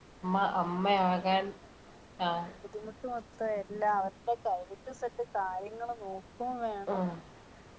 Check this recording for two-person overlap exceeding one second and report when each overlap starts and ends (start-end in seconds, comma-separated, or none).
none